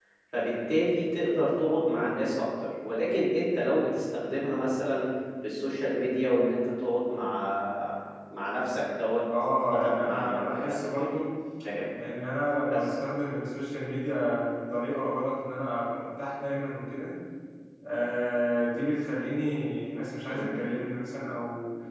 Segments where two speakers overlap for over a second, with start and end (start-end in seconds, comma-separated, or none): 9.6-11.1